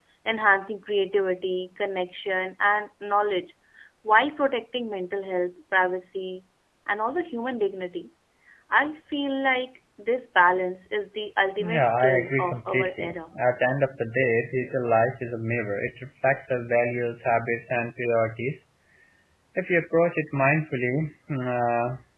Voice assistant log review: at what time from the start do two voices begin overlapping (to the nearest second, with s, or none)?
12 s